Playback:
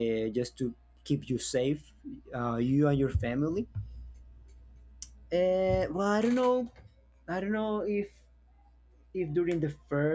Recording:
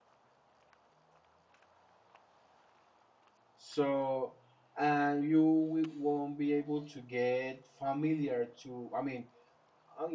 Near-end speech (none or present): present